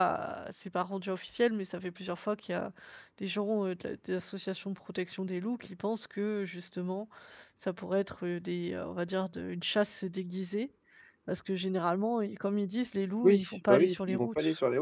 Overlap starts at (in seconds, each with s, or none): 13.2 s